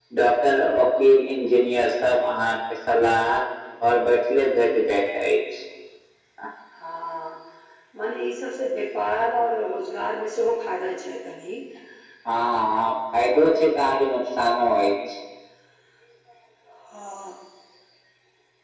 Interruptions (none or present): none